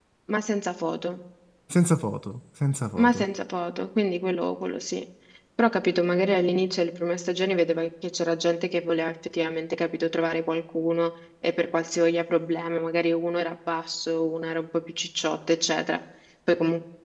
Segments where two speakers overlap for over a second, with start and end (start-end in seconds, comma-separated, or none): none